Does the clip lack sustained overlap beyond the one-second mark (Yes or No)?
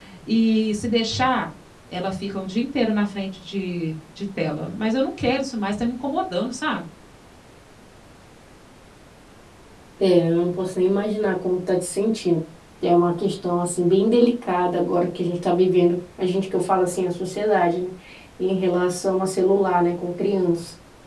Yes